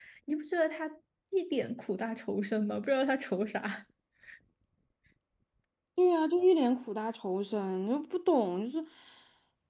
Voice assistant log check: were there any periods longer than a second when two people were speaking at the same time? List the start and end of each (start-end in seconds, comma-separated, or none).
none